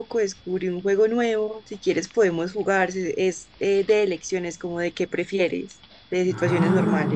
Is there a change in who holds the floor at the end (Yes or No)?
Yes